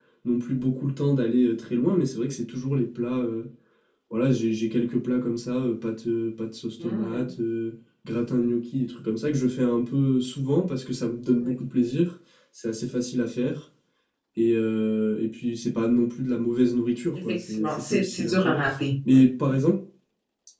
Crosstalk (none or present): present